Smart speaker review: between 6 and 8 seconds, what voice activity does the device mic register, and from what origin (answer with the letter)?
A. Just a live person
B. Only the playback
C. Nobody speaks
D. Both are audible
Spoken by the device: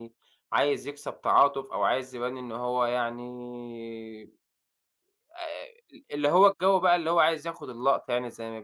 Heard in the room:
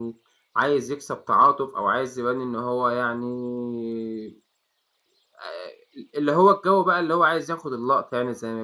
B